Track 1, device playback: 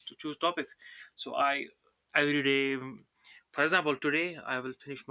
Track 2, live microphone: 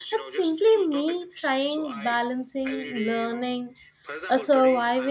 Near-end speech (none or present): present